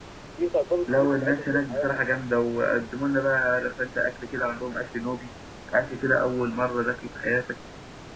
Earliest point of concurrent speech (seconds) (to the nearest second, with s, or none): 1 s